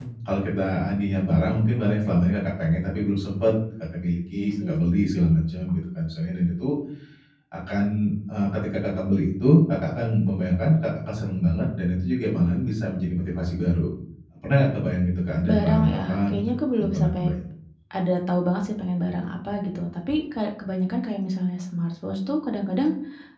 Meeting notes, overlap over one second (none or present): present